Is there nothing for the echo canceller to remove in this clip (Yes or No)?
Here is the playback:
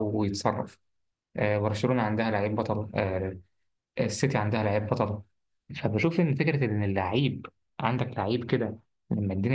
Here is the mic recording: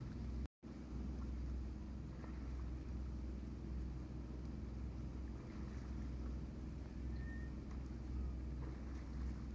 Yes